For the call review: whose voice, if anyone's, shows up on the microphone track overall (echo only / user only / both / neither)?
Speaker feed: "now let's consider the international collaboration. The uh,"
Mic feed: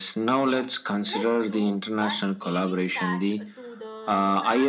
both